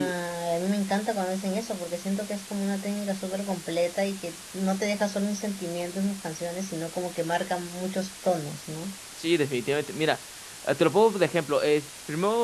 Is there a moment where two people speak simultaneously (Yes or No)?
No